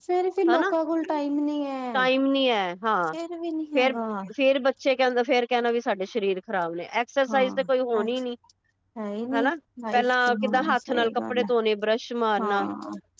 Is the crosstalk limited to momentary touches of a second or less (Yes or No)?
No